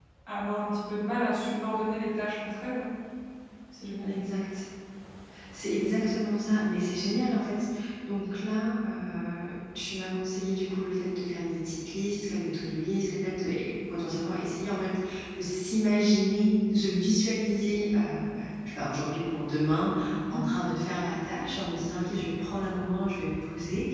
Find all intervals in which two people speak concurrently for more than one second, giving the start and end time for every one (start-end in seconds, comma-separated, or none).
none